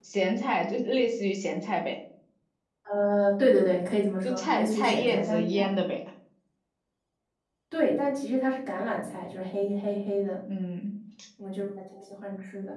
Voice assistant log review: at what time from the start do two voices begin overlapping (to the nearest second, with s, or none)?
4 s